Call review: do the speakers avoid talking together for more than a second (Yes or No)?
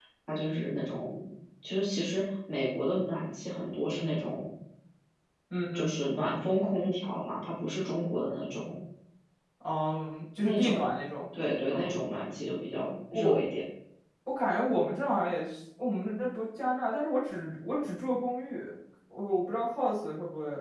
Yes